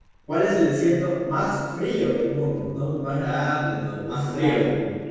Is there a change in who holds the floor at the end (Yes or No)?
Yes